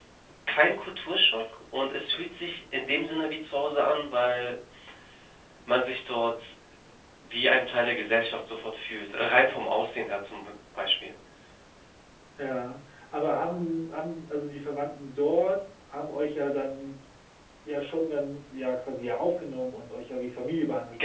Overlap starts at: none

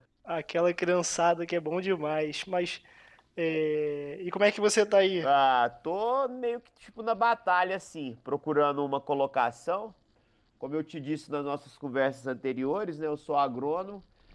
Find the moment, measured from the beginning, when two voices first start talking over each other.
none

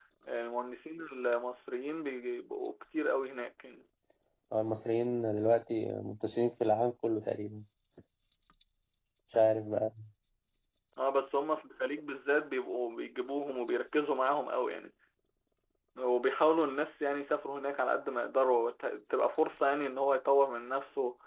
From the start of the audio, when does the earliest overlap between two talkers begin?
none

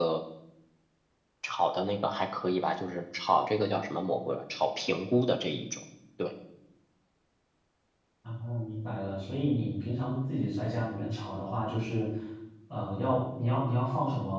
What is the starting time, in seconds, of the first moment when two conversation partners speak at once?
none

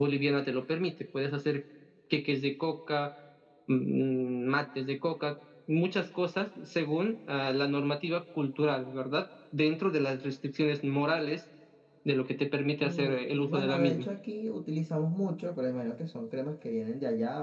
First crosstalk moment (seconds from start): 12.8 s

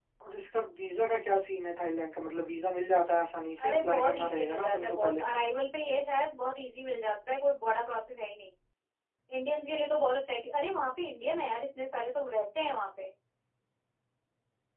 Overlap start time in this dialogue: 3.6 s

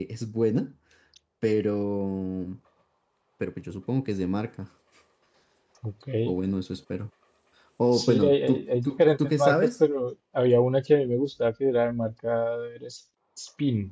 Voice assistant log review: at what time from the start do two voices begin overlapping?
7.9 s

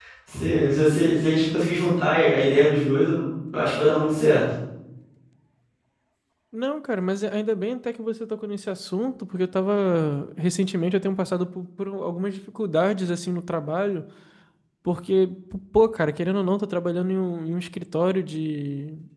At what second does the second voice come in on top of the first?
none

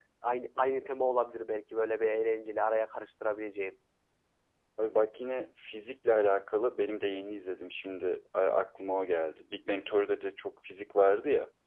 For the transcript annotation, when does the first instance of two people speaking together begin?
none

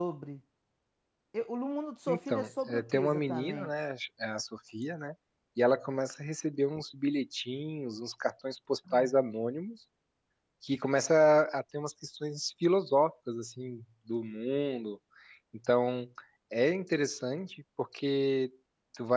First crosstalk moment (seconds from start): 2.1 s

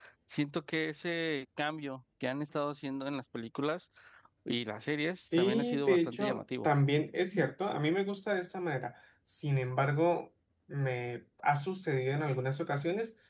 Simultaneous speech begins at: 5.2 s

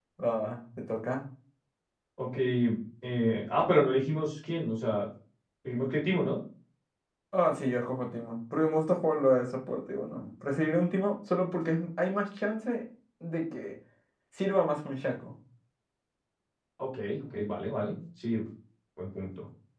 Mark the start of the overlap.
none

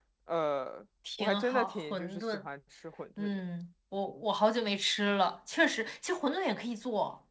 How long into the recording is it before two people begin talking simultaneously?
1.2 s

